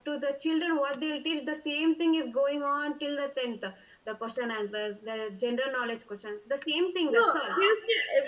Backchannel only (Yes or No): No